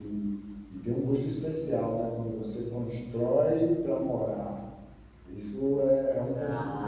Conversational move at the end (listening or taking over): listening